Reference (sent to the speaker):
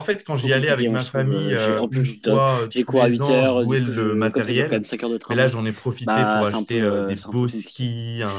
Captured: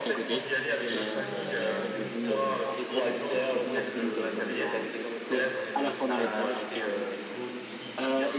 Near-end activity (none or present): present